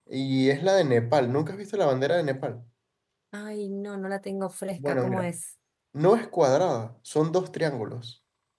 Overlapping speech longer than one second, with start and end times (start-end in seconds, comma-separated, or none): none